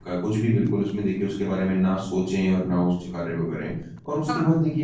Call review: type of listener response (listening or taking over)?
listening